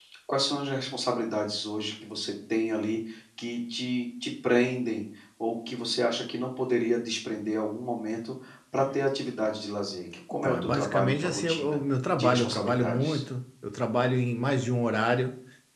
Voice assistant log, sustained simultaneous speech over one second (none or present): present